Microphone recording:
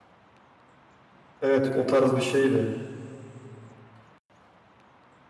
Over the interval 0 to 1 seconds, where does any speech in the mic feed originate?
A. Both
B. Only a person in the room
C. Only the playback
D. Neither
D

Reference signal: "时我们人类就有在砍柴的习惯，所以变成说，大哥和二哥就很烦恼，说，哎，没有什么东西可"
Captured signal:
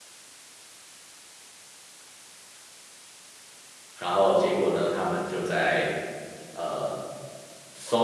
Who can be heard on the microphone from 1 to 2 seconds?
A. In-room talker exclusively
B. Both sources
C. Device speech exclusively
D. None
D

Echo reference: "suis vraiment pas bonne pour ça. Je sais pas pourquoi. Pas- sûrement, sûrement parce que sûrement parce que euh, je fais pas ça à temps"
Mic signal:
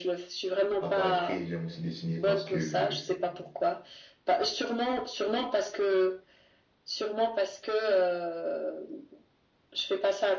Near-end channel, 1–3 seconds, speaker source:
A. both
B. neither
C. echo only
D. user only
A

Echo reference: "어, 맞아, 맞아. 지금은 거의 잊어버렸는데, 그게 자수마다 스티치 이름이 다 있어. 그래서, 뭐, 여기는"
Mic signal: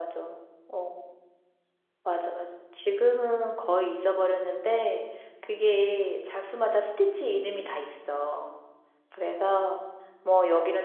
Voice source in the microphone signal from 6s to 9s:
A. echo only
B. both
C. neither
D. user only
A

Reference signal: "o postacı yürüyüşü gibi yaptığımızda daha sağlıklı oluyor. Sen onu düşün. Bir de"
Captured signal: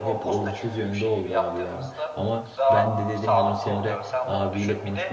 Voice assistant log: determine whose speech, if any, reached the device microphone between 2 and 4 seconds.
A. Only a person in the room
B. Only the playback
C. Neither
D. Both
D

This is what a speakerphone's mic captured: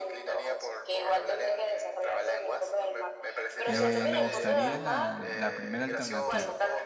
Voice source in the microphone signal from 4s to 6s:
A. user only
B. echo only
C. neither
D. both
D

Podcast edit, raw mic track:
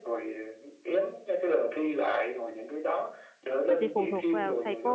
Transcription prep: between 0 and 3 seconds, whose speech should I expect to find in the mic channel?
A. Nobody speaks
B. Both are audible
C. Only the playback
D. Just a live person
C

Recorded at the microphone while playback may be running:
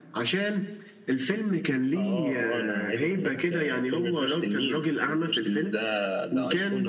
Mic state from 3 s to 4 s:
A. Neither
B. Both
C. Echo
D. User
C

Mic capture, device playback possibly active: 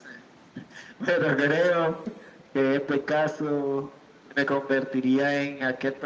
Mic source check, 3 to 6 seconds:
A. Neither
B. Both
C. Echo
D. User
C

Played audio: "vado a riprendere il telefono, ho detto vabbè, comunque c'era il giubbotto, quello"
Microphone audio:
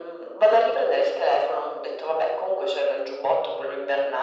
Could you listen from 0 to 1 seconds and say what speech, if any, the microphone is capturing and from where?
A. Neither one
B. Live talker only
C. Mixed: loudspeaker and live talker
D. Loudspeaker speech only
D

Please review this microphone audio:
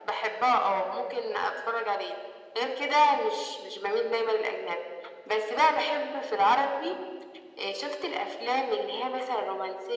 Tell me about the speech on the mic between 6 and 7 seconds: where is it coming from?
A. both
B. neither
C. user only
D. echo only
D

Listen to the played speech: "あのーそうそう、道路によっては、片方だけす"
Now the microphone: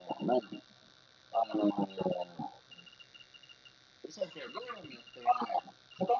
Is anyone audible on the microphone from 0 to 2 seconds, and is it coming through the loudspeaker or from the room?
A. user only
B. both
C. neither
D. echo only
D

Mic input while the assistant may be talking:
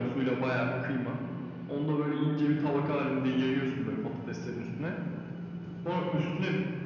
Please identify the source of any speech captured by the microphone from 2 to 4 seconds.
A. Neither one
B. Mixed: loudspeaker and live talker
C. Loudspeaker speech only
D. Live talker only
C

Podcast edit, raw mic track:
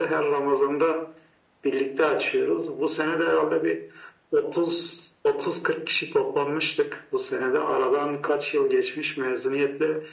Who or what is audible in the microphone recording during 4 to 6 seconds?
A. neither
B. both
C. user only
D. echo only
D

